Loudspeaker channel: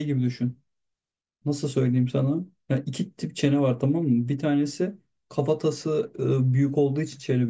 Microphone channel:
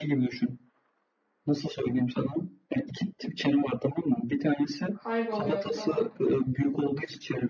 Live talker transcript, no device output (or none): Kayboluyordu falan.